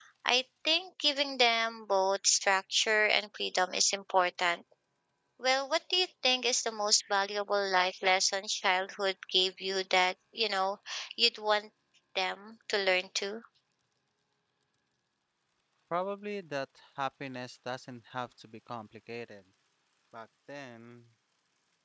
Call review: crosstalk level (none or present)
none